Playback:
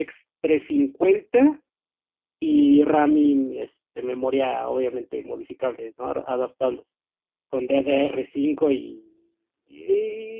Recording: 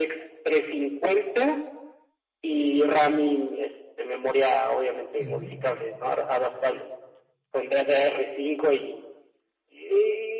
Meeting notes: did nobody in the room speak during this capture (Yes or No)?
No